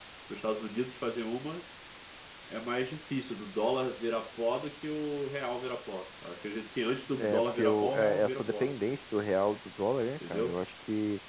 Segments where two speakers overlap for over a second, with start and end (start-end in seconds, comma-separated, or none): 7.2-8.7